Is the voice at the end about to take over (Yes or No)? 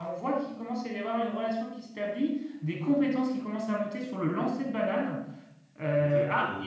No